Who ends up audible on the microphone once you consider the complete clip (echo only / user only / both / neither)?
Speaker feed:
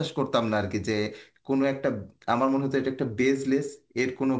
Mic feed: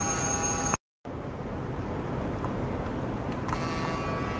neither